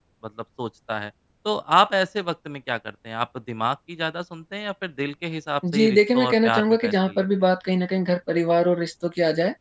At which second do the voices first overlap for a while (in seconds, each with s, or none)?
5.6 s